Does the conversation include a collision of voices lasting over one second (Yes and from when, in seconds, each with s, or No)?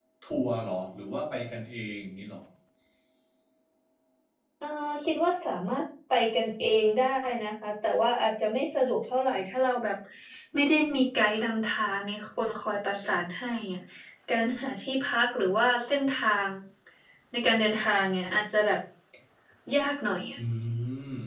No